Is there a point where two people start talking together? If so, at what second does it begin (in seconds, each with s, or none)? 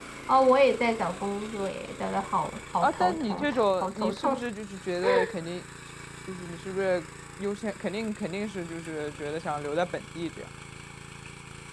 2.8 s